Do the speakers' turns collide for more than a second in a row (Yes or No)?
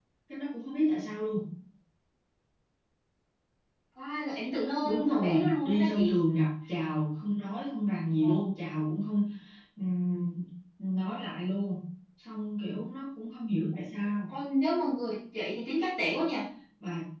Yes